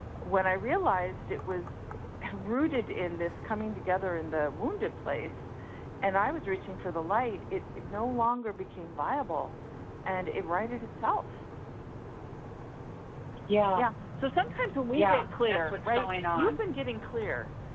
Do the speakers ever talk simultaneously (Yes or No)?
Yes